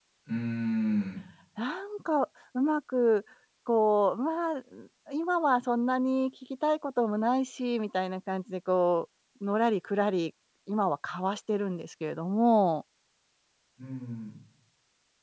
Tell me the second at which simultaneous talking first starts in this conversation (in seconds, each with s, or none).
none